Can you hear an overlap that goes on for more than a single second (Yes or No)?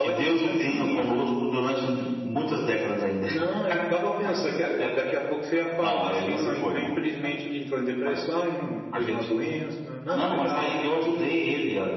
Yes